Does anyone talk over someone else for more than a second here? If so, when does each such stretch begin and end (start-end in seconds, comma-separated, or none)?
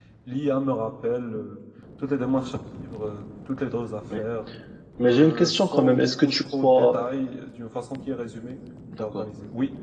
5.0-7.0